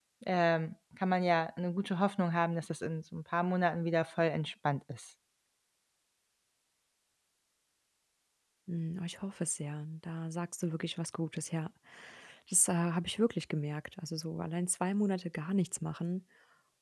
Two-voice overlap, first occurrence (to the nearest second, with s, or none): none